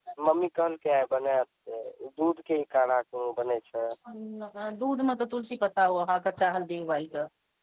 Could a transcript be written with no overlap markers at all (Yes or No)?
Yes